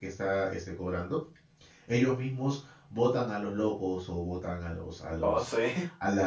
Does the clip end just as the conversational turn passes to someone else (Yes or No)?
No